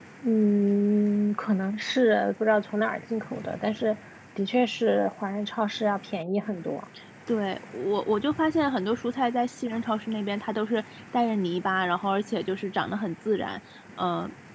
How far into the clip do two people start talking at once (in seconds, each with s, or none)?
none